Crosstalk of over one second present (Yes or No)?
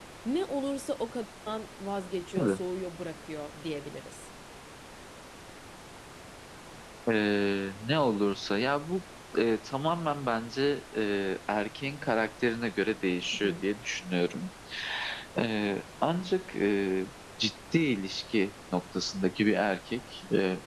No